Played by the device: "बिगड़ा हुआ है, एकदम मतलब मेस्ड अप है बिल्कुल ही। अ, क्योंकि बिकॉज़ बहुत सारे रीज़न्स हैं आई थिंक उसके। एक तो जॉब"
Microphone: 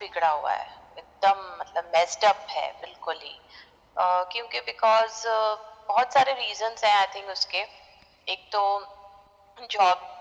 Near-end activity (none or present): none